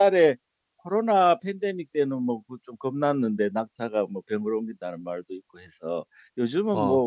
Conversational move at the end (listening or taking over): listening